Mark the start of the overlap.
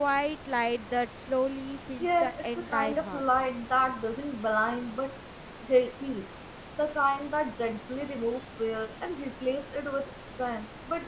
2.0 s

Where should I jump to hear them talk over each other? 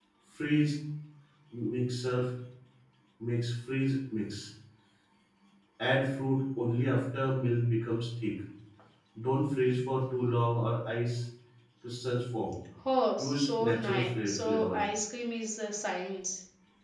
13.2 s

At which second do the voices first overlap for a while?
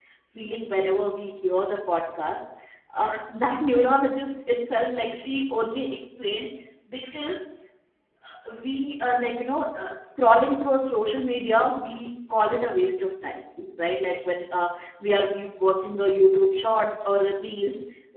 none

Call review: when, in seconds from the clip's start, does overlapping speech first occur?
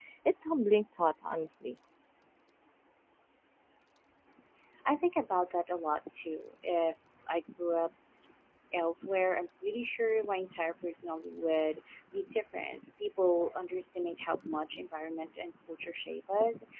none

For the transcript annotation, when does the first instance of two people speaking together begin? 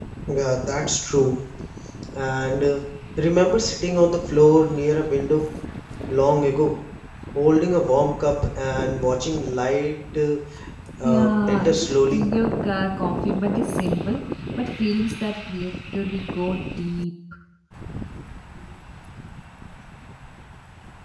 11.0 s

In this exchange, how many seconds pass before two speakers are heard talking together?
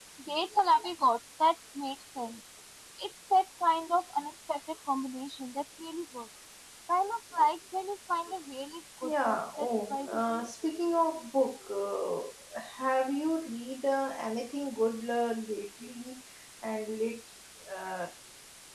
9.0 s

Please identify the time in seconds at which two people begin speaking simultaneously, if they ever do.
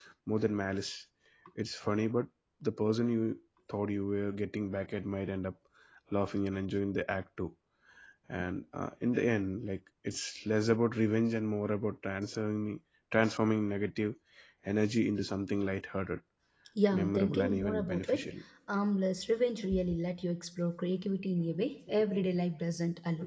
16.9 s

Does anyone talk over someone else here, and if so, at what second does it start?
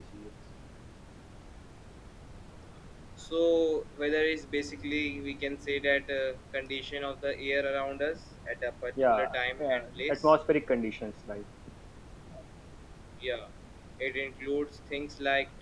9.0 s

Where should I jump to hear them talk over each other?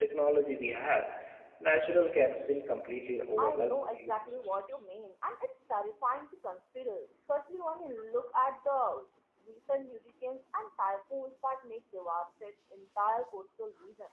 3.4 s

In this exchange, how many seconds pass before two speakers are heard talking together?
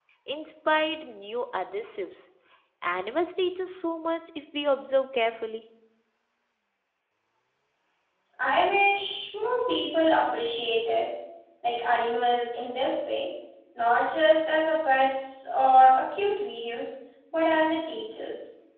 none

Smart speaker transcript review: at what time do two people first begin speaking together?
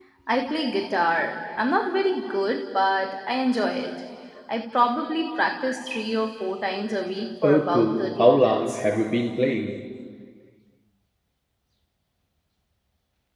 7.4 s

